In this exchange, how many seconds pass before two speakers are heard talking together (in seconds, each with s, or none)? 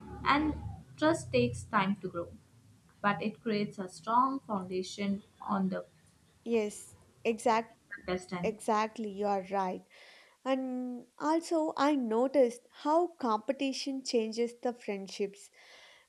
none